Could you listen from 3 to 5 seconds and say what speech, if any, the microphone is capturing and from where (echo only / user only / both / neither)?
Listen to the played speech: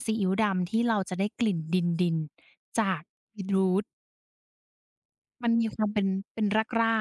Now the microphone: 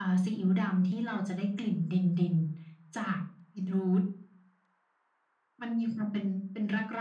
echo only